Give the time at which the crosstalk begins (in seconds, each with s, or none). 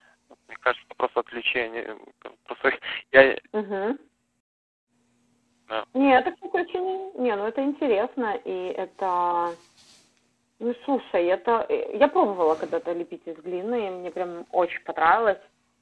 none